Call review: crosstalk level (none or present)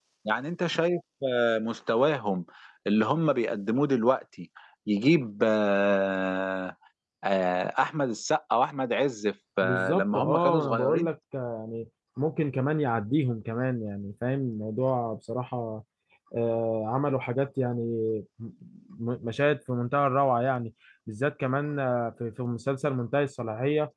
present